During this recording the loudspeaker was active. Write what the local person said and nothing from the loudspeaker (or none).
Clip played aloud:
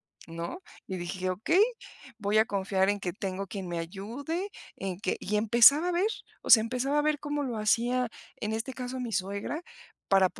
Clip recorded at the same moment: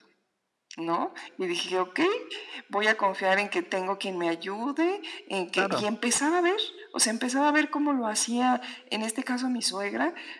Claro.